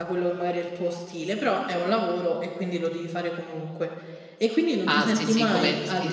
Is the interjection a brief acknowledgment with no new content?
No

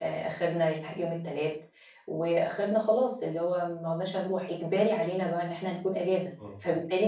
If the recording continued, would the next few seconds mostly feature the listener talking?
No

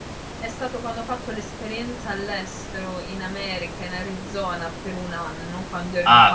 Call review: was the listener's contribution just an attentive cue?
No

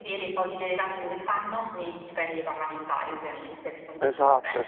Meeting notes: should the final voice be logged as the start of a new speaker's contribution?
Yes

